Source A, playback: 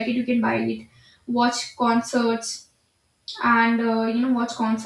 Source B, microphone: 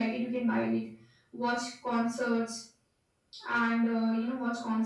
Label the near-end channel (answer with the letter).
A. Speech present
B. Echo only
B